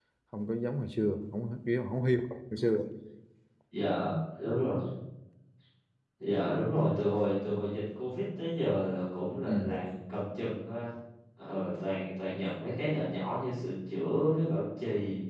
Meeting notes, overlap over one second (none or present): none